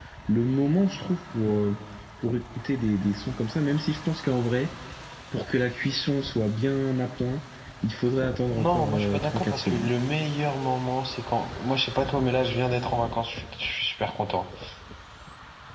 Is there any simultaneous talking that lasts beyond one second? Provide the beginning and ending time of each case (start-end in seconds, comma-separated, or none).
8.6-9.9